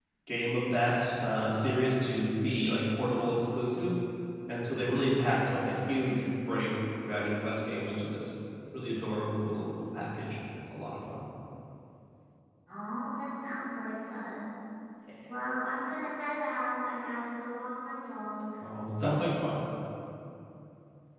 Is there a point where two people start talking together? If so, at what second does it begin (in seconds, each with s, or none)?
none